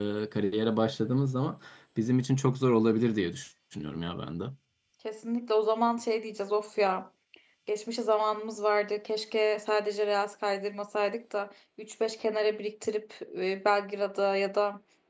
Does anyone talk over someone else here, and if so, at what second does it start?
none

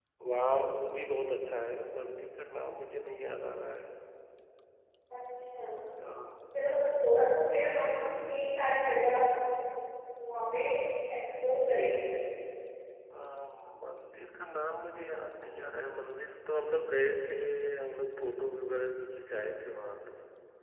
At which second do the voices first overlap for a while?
none

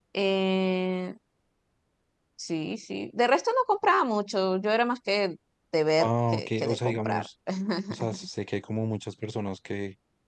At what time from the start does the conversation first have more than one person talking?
6 s

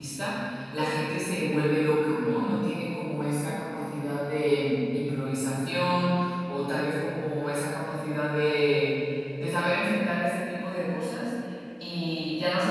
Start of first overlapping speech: none

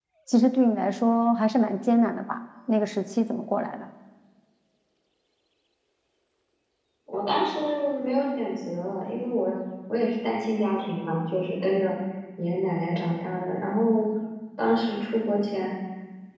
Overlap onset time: none

